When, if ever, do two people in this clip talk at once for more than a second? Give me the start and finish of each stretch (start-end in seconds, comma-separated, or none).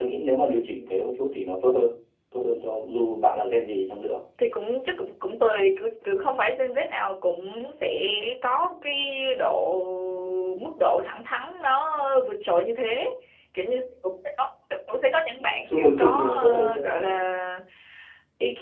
15.4-17.0